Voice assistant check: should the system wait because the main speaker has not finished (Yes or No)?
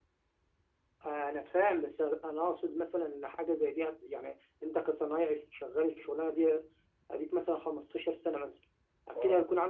Yes